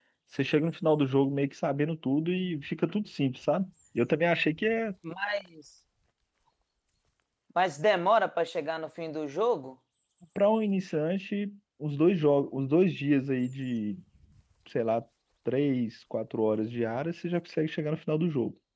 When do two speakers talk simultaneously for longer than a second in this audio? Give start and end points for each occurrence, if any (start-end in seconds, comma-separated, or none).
none